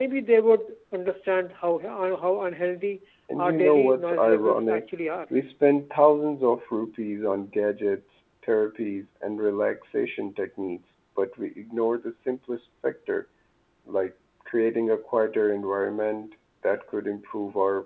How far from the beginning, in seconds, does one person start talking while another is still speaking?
3.3 s

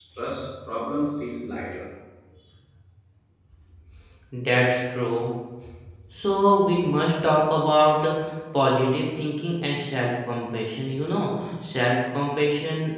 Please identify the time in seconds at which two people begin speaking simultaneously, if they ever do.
none

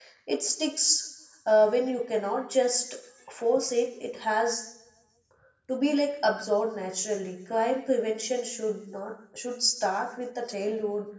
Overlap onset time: none

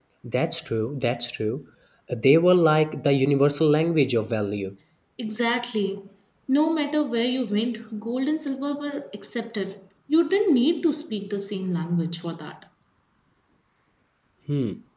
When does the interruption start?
none

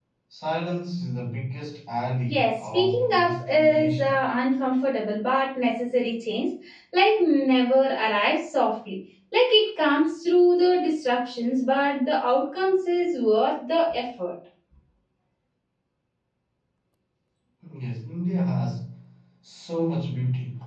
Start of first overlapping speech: 2.2 s

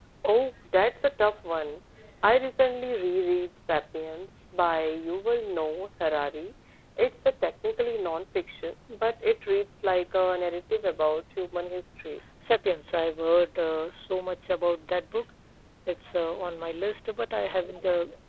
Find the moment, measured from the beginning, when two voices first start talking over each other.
none

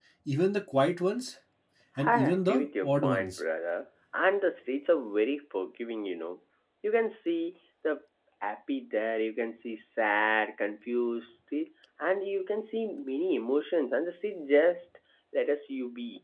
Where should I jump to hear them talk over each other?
2.0 s

